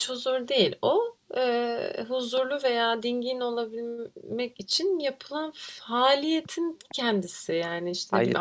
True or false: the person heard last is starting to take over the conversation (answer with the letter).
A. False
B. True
A